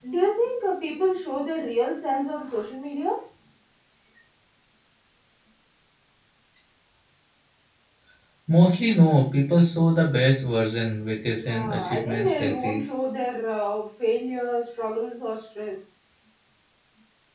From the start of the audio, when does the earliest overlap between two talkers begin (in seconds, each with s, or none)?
11.4 s